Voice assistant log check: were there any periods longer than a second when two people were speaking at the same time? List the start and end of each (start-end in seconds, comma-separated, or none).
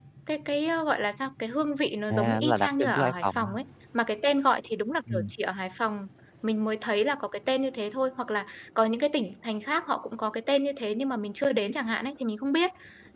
2.1-3.5